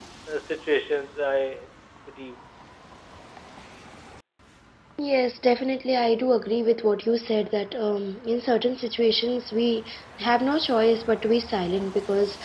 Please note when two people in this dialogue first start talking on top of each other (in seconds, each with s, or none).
none